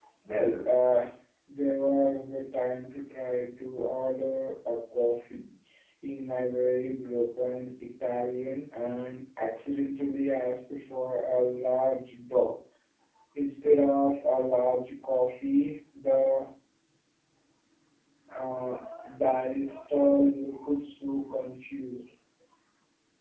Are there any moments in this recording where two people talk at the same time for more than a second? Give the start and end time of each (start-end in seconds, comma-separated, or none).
none